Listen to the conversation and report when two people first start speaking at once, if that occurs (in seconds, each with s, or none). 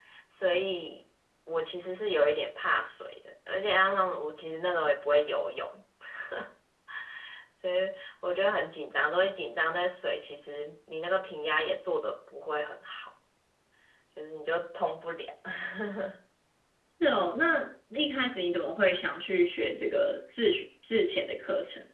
none